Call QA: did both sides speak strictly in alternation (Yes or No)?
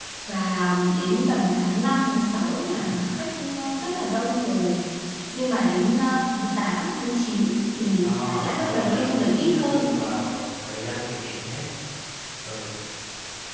No